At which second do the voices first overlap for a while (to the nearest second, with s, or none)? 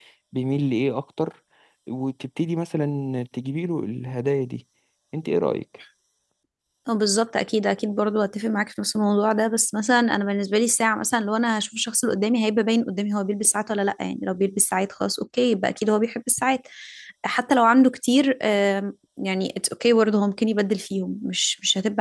none